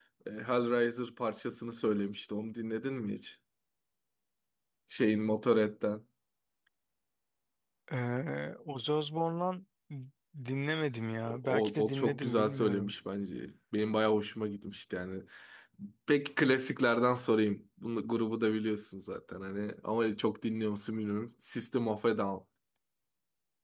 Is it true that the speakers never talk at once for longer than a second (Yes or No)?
No